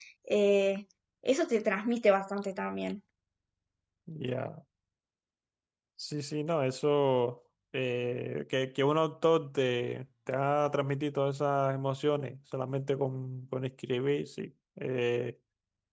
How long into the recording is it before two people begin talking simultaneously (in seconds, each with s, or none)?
none